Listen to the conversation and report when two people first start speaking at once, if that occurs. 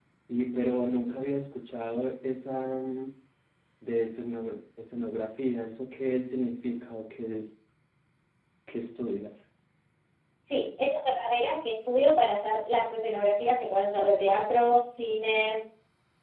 none

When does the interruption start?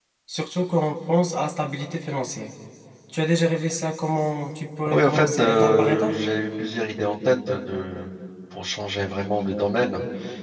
4.8 s

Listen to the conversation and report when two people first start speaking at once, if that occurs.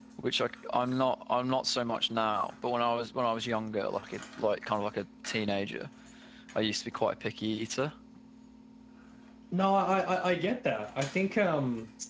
none

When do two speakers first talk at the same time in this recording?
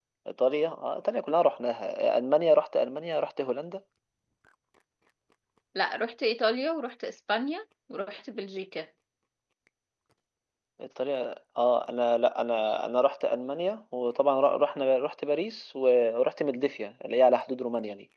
none

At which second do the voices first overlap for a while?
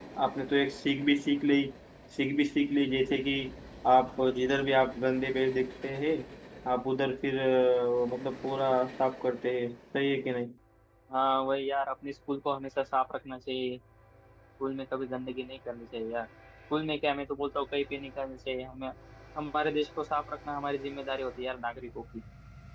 none

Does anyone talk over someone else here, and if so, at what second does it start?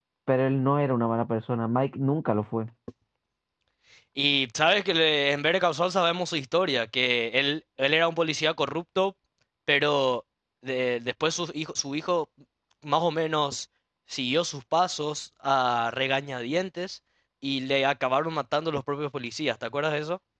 none

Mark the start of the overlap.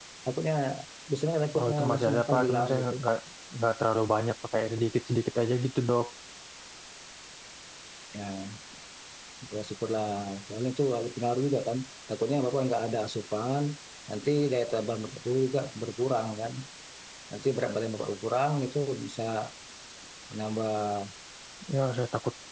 1.6 s

